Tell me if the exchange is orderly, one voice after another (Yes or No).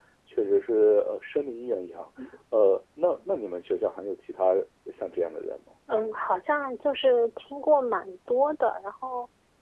Yes